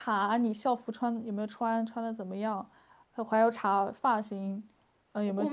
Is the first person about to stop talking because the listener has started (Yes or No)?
Yes